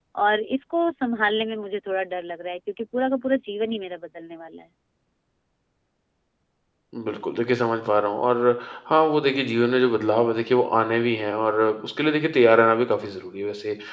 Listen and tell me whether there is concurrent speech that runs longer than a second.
No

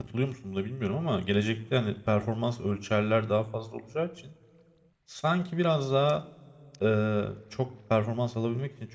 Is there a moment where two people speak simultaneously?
No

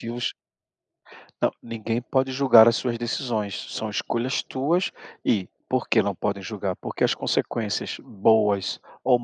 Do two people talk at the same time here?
No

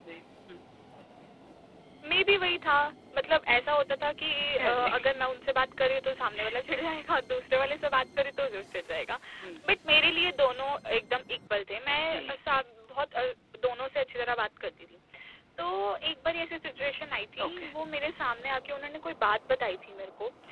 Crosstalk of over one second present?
No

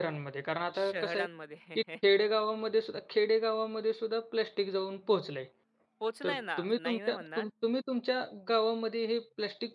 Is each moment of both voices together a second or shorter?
No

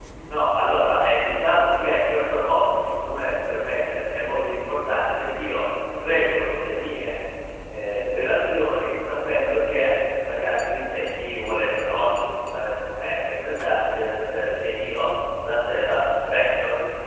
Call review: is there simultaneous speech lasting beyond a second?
No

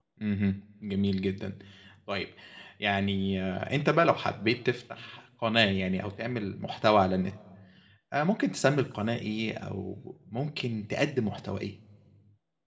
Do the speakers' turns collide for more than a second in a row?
No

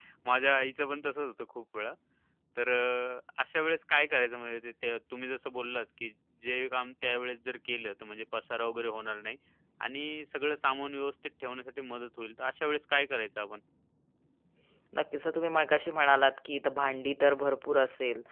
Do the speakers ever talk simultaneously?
No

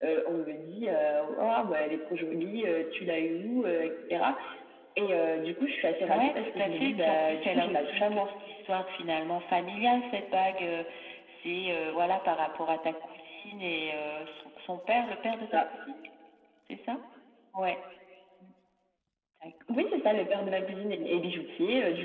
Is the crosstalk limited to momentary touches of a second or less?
No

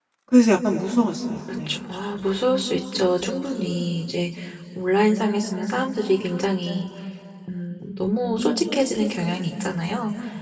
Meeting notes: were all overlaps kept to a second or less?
Yes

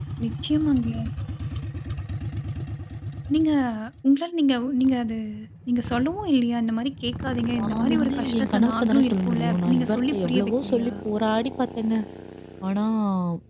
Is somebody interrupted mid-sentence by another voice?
Yes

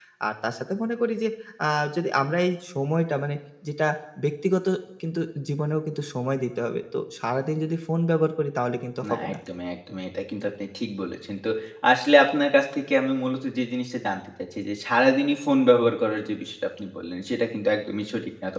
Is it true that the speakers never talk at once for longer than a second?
Yes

